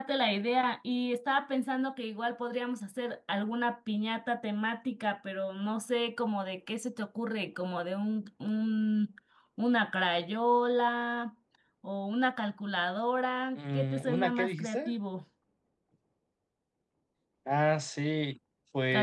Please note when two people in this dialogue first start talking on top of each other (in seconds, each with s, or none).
13.6 s